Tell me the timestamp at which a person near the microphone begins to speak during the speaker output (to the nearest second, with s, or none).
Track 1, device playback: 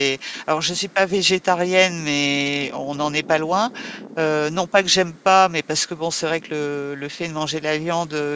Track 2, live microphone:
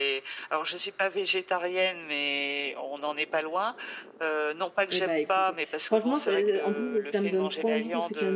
5 s